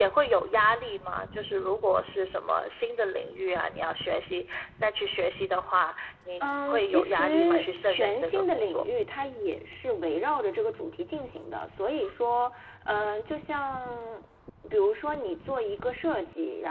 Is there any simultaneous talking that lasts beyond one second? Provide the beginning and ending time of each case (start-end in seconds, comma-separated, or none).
6.4-8.8